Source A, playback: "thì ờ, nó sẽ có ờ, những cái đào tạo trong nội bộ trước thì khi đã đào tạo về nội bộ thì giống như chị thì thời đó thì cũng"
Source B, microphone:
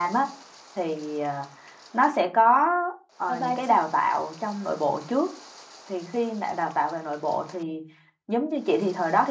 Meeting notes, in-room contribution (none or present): present